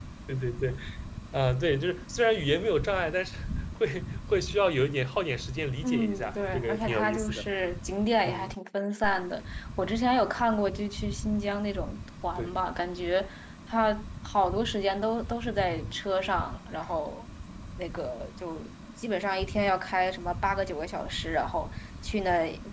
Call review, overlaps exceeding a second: present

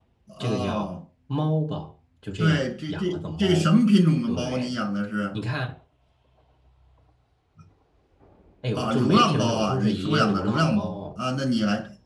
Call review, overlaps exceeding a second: present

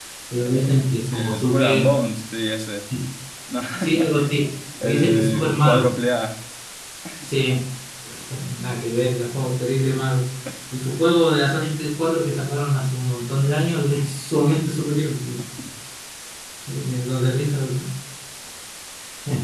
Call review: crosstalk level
present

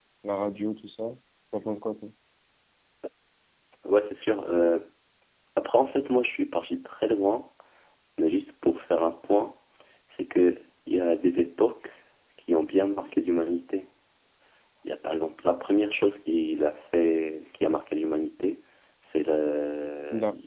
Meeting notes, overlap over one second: none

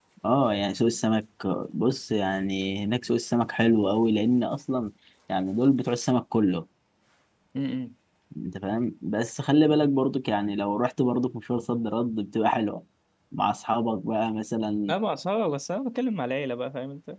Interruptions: none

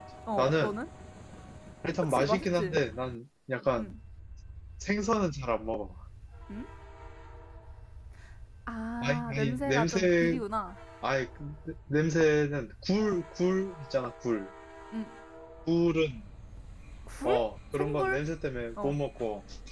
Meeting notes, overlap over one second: present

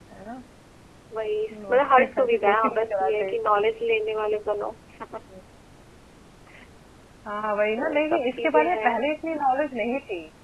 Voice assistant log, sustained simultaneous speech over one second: present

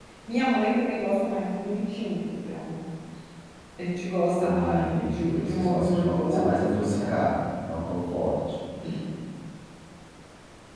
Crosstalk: present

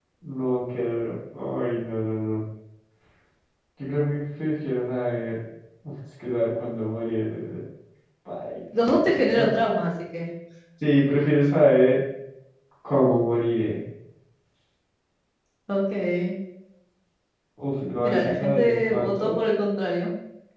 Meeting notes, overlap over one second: present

